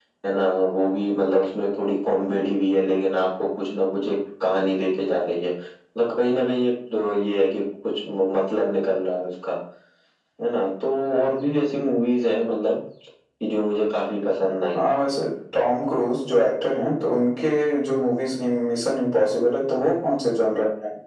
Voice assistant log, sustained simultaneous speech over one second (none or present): none